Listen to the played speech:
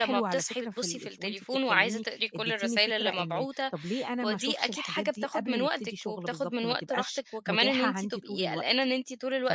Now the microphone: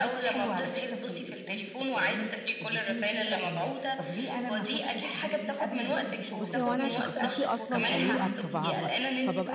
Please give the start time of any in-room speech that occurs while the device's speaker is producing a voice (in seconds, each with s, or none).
6.4 s